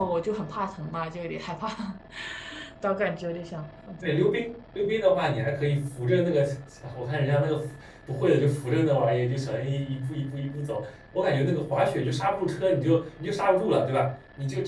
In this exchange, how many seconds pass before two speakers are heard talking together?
none

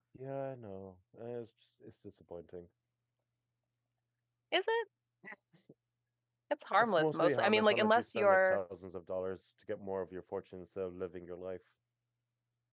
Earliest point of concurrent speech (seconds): 7 s

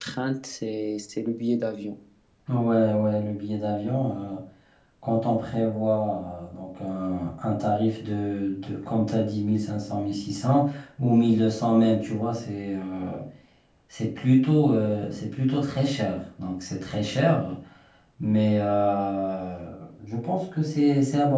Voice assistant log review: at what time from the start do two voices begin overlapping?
none

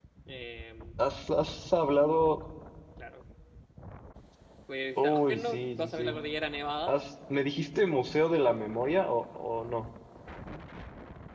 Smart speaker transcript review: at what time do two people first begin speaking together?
5 s

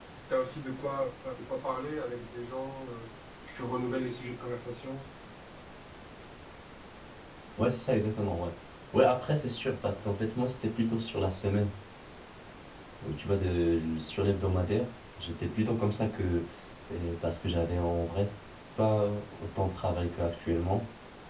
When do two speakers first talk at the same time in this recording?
none

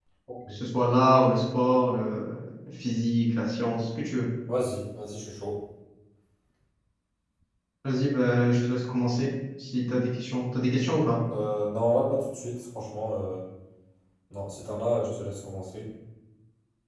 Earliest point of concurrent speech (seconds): none

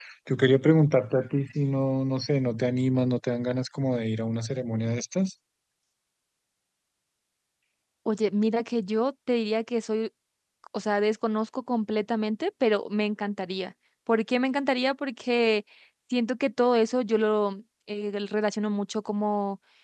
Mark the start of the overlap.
none

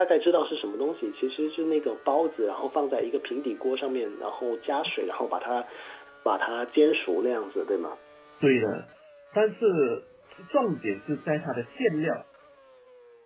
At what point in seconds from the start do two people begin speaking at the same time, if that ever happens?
none

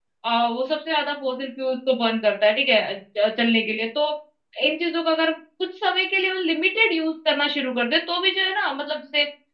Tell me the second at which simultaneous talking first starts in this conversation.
none

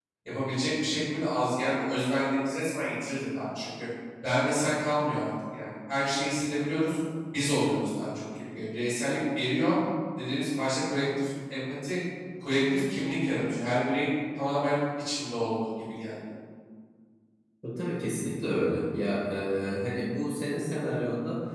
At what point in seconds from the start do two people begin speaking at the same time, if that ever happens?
none

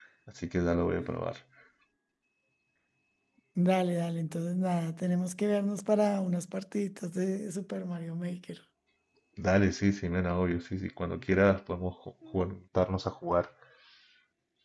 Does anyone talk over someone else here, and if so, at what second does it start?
none

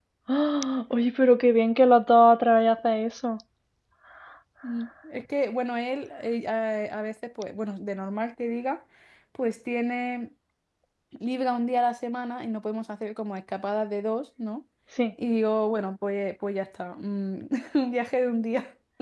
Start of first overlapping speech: none

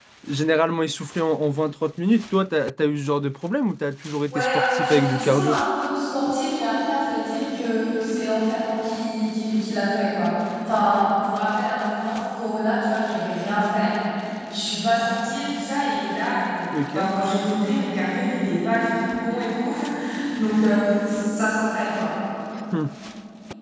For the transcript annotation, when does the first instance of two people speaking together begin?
4 s

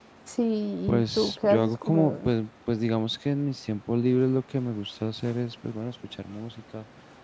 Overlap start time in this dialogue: 1 s

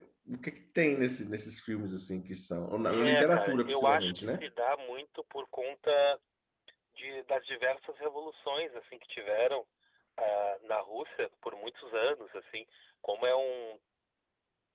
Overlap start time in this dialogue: 3 s

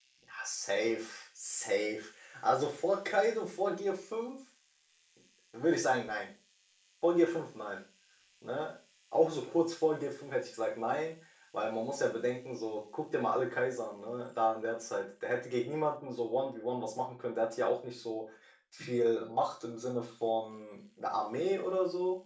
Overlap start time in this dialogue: none

